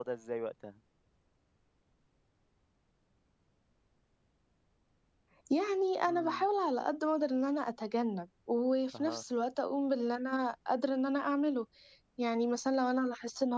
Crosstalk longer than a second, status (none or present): none